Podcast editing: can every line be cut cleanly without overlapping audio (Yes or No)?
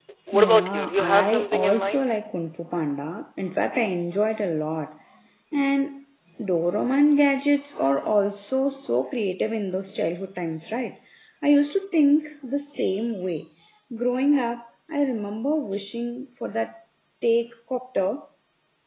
No